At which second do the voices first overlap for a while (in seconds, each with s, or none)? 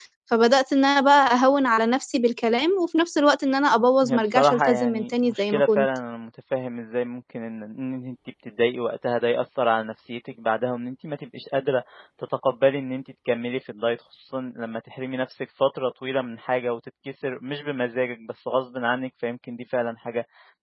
4.0 s